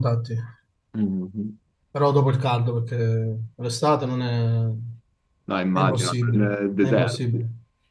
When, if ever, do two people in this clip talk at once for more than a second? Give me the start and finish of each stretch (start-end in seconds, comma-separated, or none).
5.8-7.4